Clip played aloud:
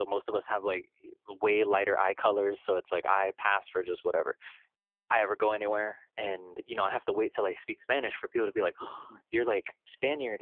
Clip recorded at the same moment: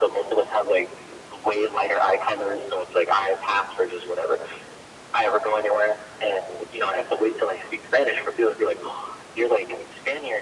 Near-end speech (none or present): none